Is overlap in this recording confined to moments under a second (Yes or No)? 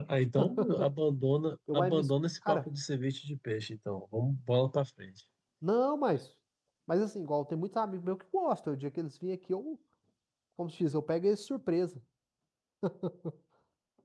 Yes